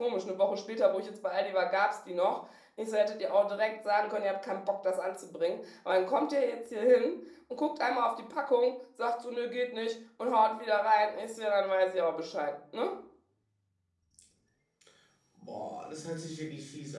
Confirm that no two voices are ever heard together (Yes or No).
Yes